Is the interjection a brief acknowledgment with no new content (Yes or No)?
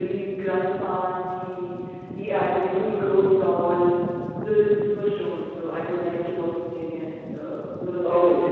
Yes